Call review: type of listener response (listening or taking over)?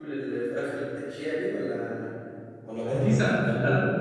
taking over